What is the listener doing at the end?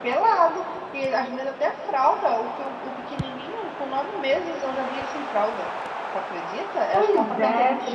listening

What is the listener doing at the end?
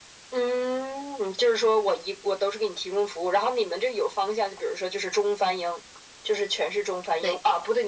listening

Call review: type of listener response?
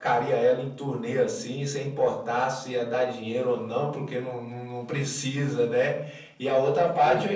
listening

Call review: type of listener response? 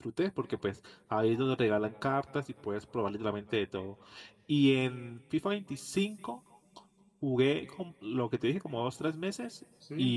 listening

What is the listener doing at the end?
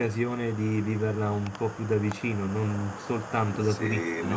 taking over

